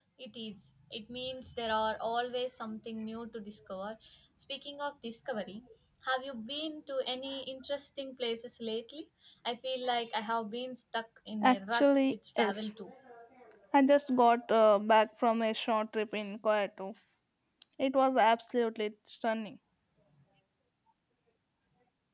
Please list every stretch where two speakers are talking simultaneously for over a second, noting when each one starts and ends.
11.4-12.6

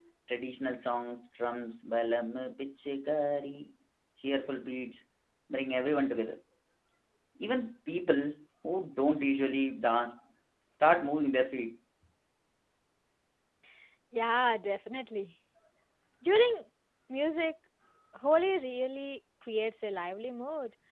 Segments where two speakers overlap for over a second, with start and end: none

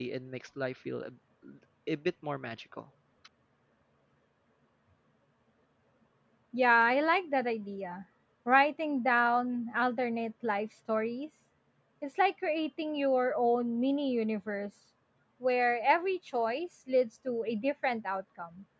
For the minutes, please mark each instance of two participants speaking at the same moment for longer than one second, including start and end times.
none

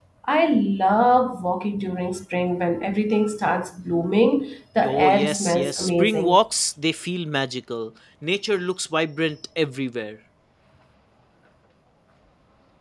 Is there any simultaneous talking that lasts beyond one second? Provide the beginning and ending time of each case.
4.9-6.4

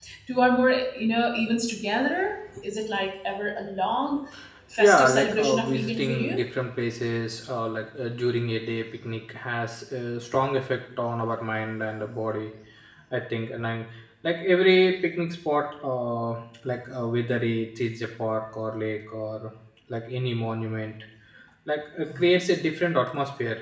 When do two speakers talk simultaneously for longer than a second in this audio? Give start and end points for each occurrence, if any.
4.8-6.5

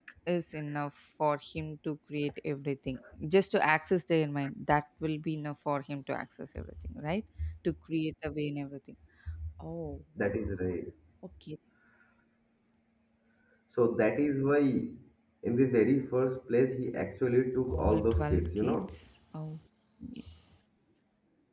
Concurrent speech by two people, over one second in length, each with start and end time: 17.7-18.9

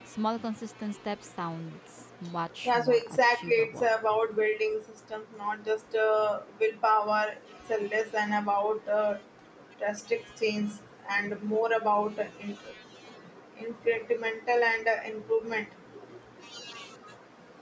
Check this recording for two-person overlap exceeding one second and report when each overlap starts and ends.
2.6-3.9

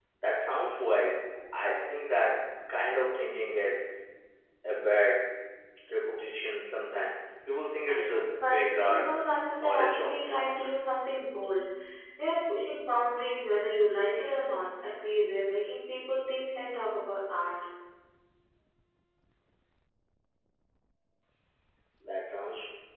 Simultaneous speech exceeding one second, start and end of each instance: 7.9-9.1

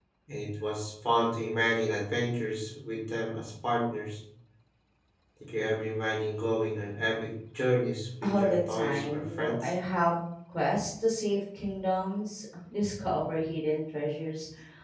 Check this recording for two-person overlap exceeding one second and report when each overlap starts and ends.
8.2-9.7

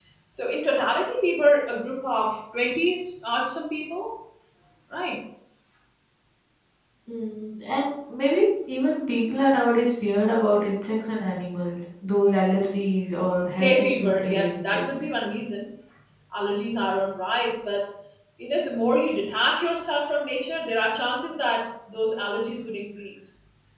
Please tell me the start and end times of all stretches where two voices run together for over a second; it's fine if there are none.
13.6-14.9

